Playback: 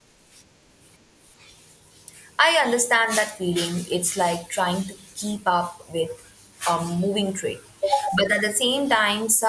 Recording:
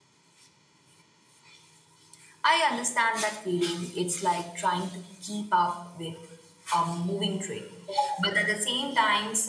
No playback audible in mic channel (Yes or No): No